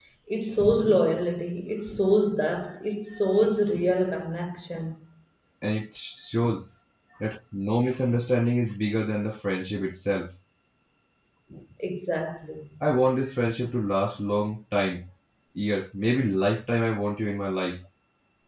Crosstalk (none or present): none